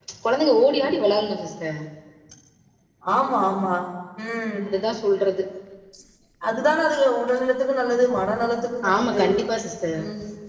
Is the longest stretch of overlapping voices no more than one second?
Yes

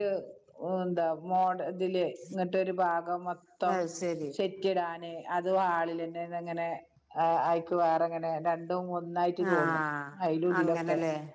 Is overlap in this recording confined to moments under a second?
Yes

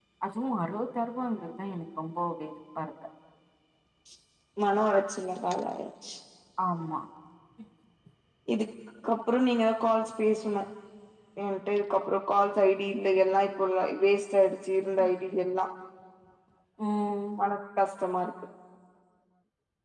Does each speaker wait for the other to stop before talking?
Yes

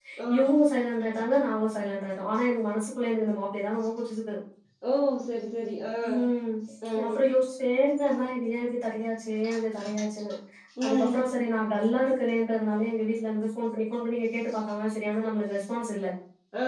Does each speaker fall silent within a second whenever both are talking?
Yes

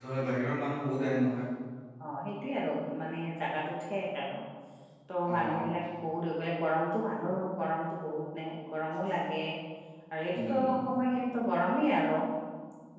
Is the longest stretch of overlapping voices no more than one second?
Yes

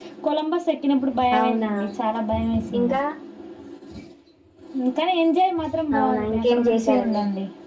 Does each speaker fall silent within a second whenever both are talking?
No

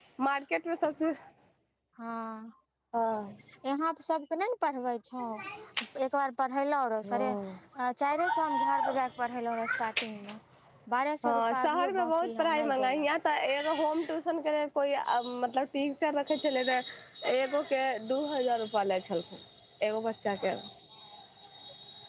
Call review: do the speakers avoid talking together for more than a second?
No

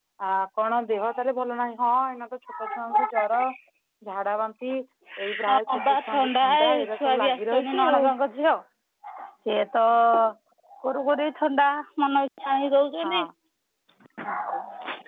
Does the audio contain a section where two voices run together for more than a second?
Yes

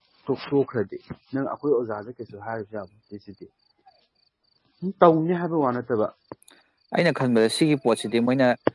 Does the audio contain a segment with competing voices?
No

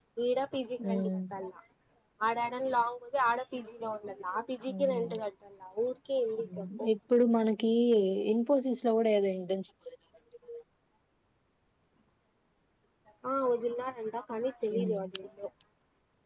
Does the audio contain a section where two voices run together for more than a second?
No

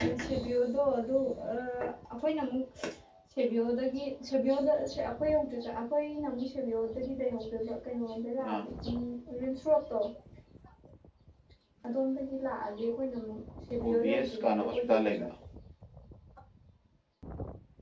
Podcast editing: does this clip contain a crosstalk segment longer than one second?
Yes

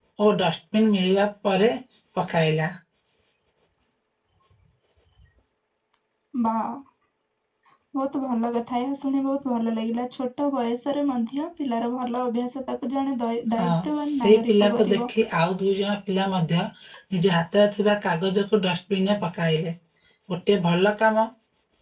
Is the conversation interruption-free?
No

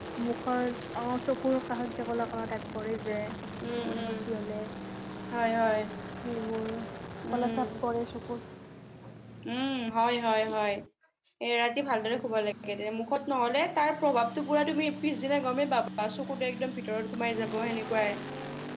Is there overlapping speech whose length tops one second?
No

